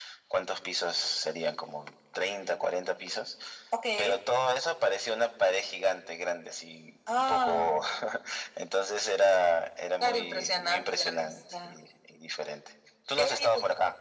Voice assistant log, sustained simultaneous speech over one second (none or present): present